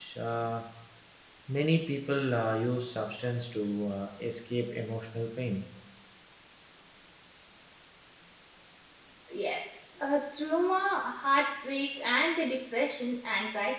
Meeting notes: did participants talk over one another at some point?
No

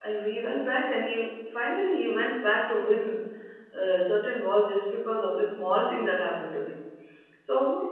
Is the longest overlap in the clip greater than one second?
No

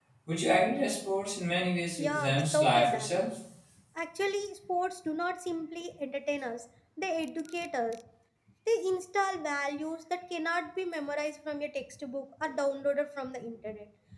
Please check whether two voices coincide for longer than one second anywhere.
Yes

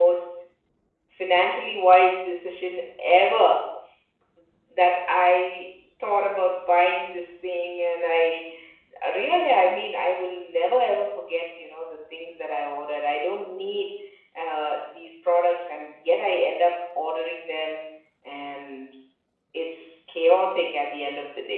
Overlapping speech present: No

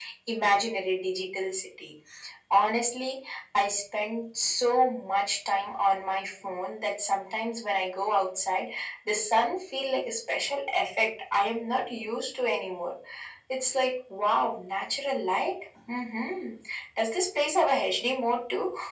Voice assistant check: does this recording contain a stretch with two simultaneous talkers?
No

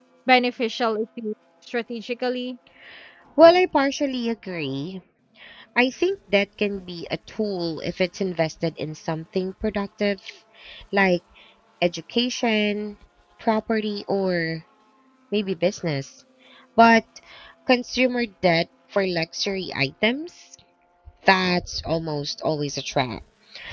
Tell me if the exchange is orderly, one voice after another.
Yes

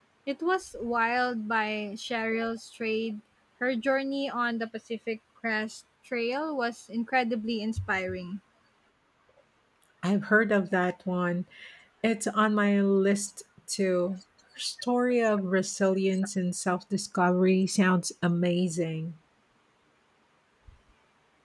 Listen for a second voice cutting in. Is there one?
No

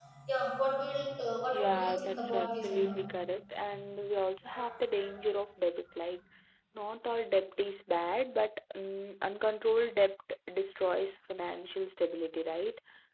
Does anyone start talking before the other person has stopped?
Yes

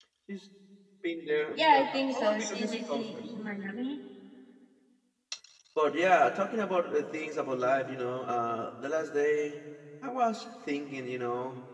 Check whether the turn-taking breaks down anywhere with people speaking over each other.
Yes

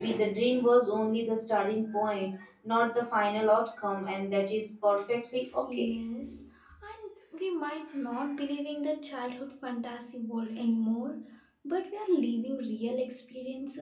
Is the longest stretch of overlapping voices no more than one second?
Yes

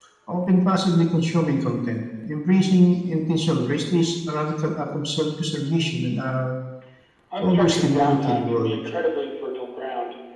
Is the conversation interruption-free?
No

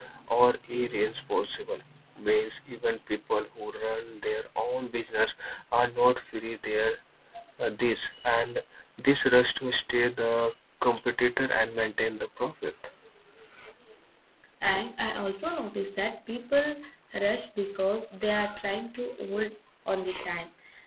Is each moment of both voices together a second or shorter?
Yes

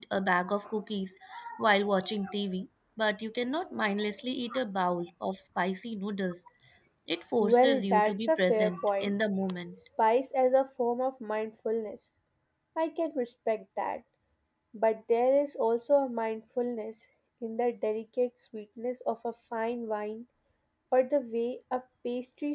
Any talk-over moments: Yes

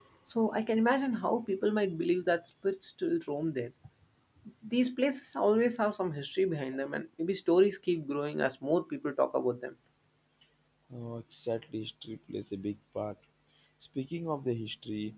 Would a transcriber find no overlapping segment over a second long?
Yes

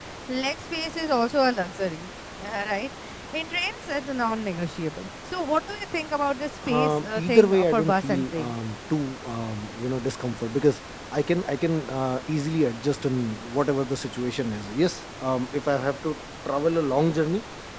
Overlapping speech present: Yes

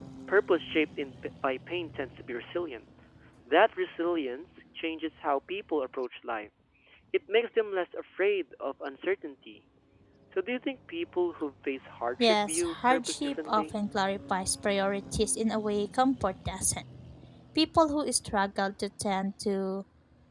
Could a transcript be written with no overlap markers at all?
No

